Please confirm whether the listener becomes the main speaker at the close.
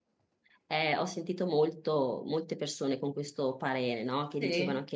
No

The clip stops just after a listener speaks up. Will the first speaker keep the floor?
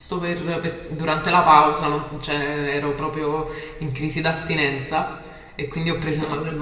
Yes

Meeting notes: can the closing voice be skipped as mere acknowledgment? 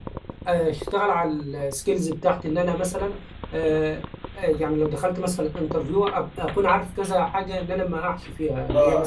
No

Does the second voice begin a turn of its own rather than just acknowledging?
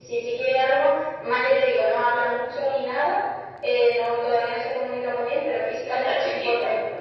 No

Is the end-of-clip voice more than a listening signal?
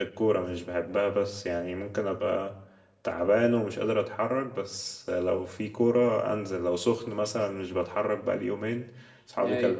No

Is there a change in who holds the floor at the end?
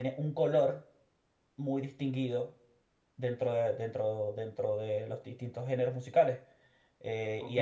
Yes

